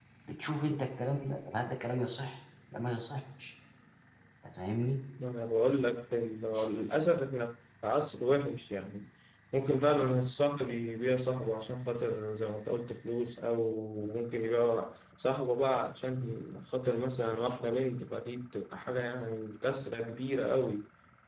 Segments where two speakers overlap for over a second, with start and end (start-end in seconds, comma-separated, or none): none